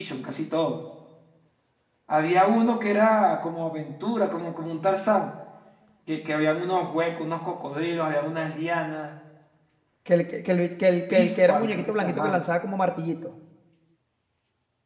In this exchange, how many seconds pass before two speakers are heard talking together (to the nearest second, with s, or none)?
11 s